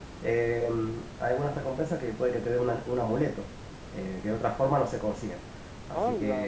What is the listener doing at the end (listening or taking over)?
taking over